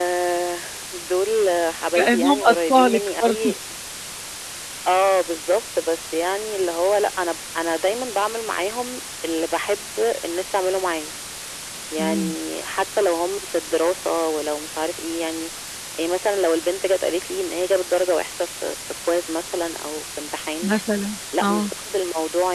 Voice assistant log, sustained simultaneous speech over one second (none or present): present